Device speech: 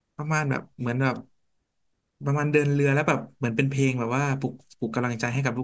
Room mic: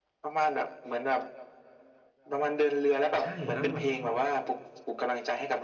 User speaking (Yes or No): Yes